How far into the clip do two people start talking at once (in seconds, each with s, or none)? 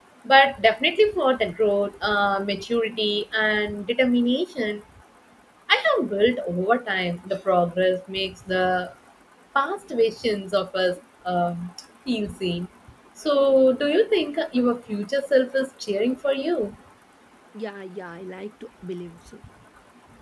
none